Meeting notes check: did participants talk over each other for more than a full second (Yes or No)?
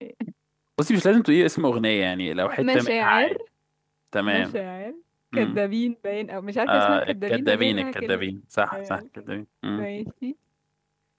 Yes